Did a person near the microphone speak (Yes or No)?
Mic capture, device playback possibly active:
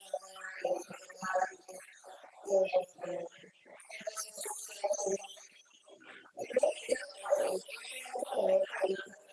No